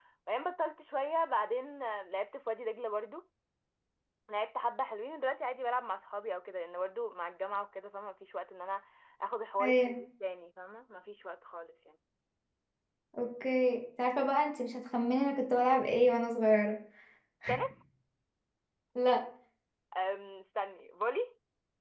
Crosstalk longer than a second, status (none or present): none